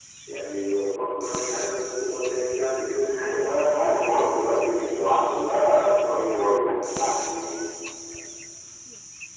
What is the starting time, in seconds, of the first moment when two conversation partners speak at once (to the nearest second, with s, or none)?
3 s